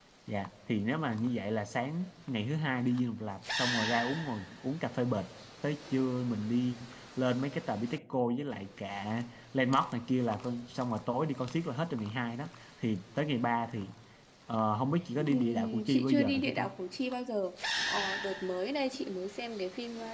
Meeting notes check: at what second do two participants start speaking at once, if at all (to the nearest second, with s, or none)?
15 s